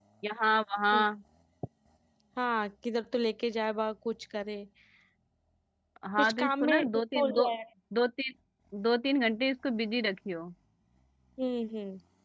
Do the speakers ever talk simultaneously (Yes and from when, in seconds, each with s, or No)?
Yes, from 6.2 s